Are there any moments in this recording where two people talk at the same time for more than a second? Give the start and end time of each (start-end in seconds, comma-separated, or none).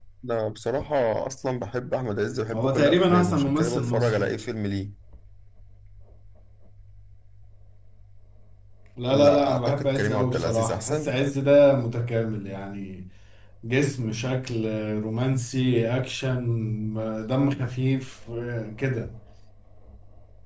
2.5-4.4, 9.1-11.1